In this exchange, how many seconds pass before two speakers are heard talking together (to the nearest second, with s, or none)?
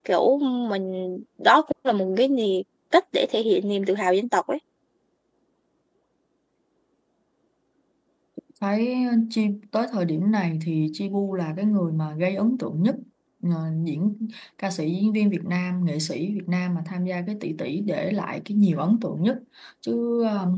none